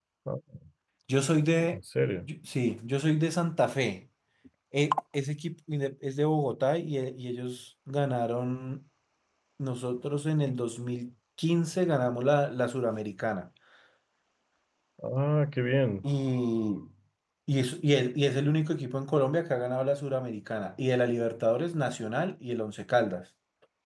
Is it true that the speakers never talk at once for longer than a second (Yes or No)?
Yes